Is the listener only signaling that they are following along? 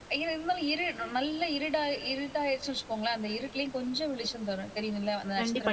No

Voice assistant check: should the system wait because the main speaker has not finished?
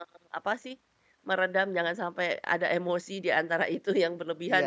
No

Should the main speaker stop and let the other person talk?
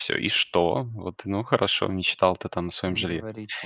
No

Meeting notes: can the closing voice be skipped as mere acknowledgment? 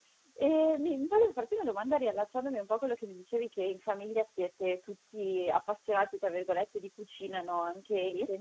Yes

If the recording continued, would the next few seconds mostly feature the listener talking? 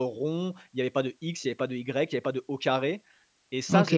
Yes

